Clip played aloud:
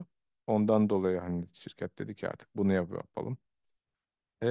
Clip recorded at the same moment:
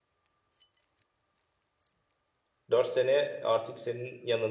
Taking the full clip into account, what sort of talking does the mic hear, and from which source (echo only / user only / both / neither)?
user only